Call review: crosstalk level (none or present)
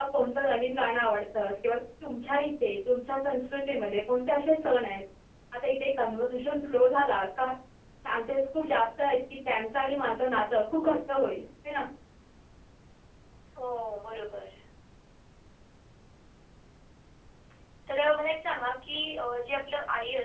none